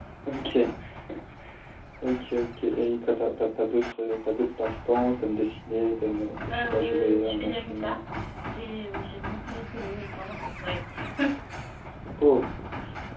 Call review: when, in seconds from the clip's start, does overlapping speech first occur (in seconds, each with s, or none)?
6.5 s